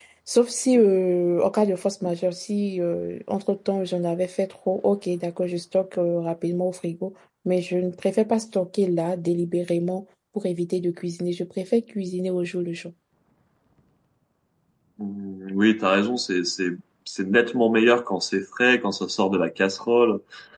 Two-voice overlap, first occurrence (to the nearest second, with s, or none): none